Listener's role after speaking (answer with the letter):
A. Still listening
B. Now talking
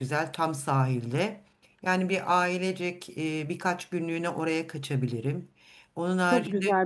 B